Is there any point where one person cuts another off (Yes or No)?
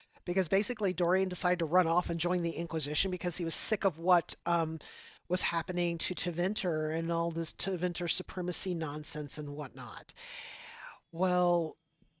No